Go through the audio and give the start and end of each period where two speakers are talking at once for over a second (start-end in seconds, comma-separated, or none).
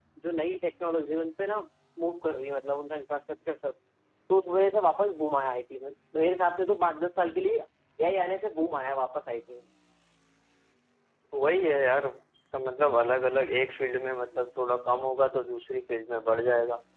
none